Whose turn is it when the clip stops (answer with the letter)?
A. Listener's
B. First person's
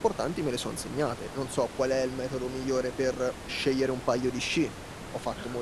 B